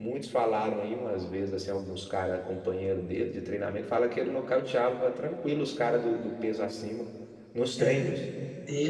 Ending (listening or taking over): taking over